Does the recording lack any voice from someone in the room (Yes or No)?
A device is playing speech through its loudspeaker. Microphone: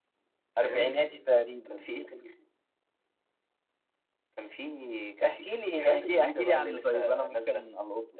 No